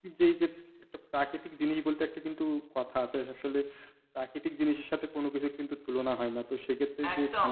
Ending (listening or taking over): taking over